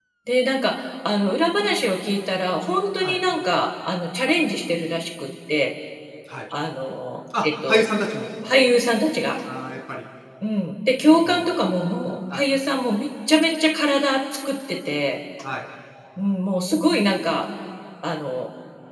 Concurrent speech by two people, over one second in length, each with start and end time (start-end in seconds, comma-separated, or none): none